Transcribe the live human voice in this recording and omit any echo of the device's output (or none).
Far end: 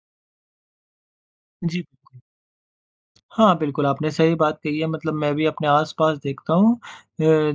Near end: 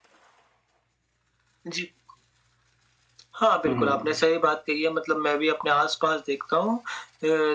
हुँ, हुँ।